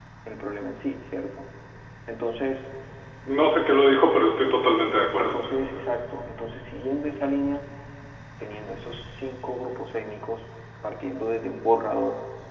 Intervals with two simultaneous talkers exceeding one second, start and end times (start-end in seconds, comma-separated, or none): none